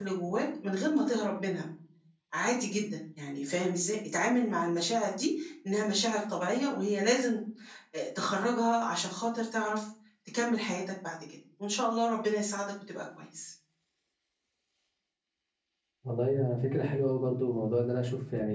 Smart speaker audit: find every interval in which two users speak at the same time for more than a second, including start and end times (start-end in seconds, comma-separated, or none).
none